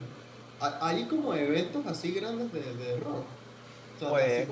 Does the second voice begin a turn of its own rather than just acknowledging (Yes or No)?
No